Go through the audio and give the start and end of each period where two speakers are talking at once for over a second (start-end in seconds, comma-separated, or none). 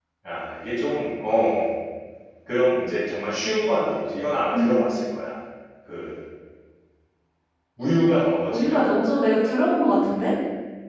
none